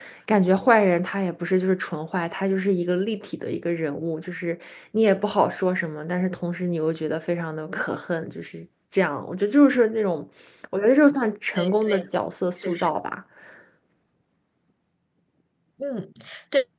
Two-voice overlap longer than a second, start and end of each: none

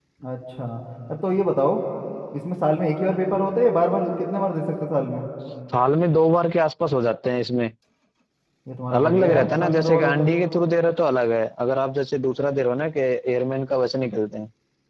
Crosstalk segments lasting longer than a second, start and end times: 9.0-10.3

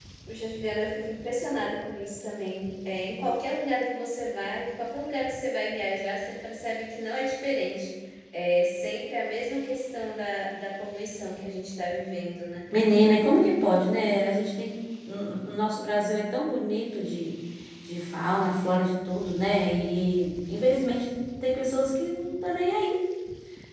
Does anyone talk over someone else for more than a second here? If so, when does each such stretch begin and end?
none

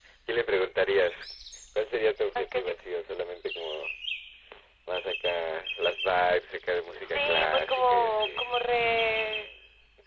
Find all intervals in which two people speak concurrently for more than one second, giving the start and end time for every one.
7.0-8.4

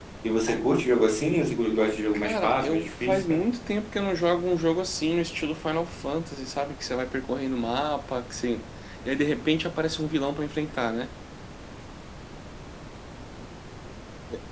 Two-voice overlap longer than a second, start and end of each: 2.1-3.5

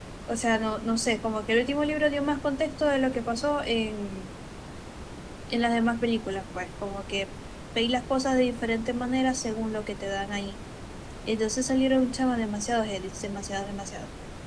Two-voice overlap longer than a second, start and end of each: none

